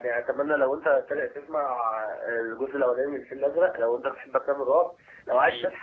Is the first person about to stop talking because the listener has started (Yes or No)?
No